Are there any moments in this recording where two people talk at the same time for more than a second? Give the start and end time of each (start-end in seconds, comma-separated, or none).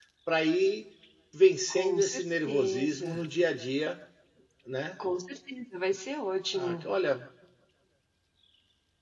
1.7-3.3